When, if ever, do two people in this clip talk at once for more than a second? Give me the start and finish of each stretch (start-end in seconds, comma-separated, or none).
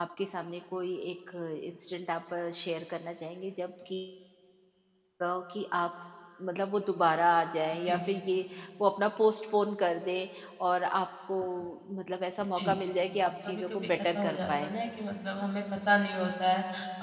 13.4-14.7